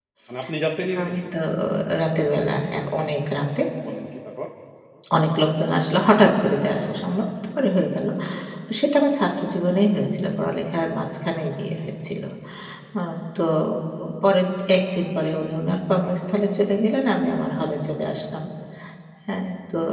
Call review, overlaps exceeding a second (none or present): none